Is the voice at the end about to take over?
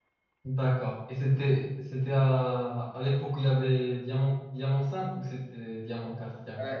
Yes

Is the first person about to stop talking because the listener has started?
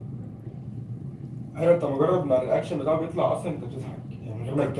No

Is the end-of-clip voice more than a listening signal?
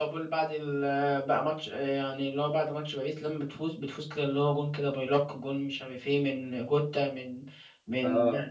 No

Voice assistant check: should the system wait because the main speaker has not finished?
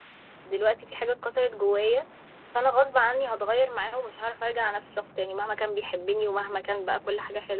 Yes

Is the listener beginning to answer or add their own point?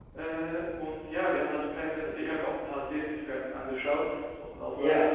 No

